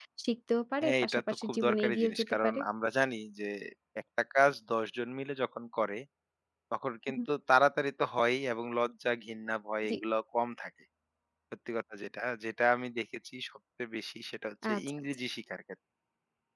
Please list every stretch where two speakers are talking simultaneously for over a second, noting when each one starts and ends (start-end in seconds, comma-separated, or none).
0.8-2.6